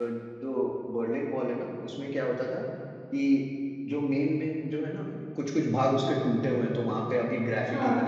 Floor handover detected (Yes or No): No